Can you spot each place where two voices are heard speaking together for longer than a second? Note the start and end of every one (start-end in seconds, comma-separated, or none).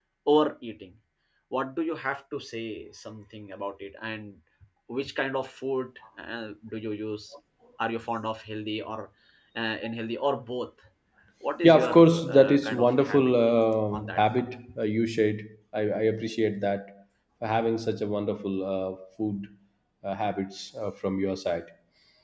11.6-13.3